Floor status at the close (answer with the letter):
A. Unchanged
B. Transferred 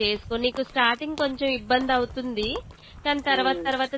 A